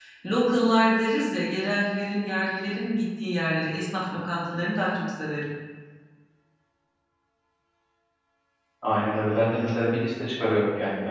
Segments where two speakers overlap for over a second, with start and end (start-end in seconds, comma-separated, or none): none